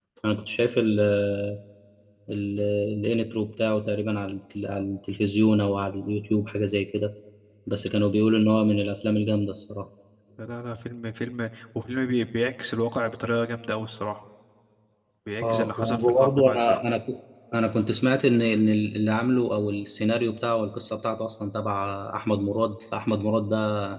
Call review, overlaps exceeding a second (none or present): present